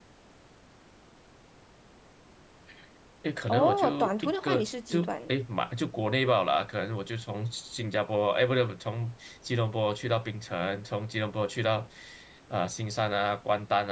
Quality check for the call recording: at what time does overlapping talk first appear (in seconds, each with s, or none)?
3.5 s